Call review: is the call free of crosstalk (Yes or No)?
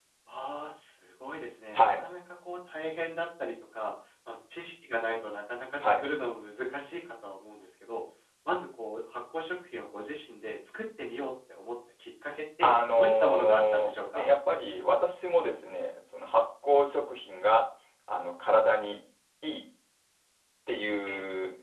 No